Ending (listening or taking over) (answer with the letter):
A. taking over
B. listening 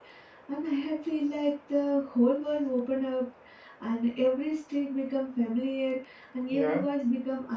B